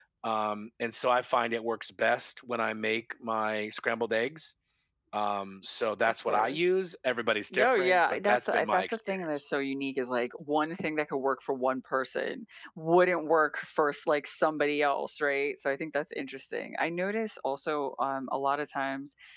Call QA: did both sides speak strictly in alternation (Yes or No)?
No